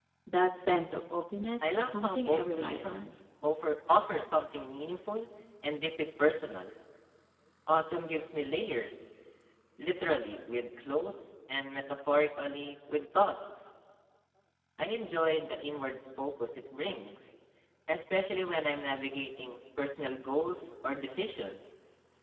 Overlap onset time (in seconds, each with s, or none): 1.6 s